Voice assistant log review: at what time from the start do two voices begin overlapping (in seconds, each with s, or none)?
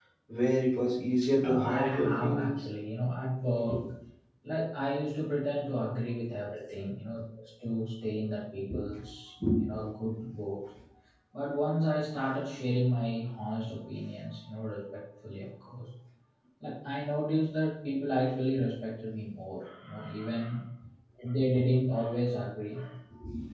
1.2 s